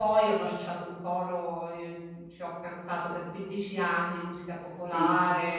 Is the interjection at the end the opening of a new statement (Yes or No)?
No